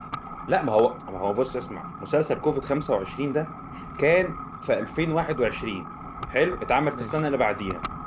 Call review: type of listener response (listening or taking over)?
listening